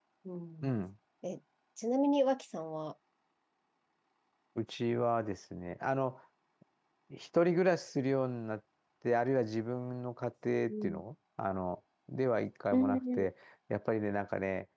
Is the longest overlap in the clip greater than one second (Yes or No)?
No